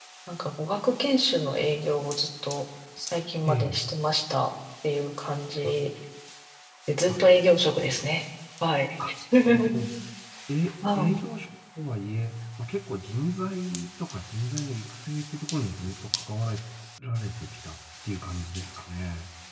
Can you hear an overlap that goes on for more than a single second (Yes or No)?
No